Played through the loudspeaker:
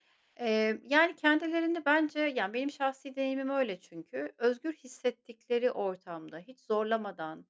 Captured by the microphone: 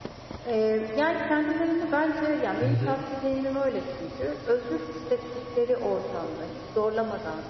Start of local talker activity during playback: 2.6 s

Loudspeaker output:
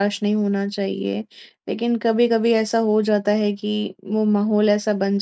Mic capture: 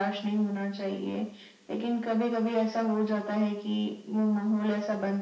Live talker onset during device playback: none

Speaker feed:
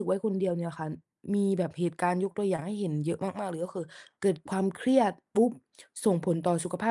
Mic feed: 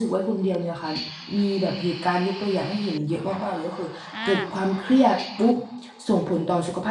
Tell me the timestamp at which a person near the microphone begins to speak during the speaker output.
4.1 s

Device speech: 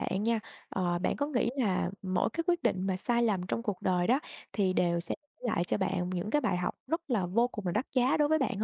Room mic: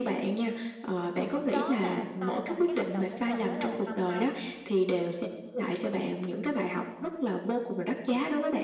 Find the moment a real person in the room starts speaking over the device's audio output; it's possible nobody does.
1.0 s

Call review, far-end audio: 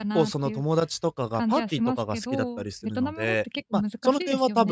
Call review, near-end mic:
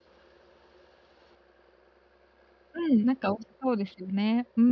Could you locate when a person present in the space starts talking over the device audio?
2.7 s

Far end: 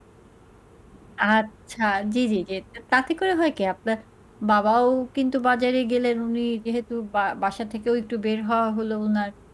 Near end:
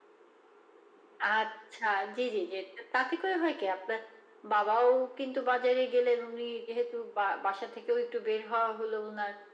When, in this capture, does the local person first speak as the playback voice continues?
none

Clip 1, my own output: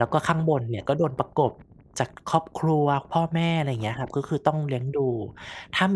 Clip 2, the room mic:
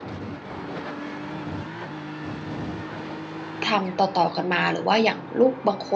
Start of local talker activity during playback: 3.7 s

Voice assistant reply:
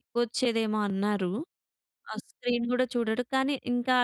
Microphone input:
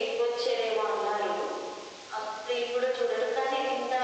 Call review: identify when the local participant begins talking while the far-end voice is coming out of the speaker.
none

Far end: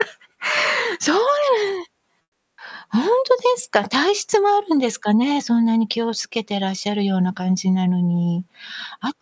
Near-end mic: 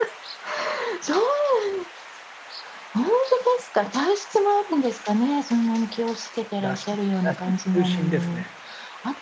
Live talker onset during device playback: 6.6 s

